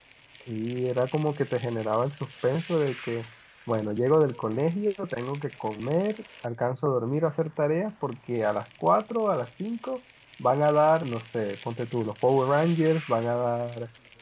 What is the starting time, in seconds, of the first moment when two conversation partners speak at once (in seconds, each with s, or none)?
none